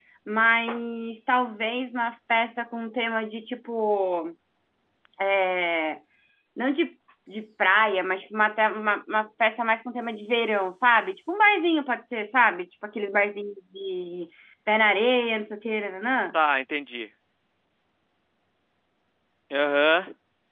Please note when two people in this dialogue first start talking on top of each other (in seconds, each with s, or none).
none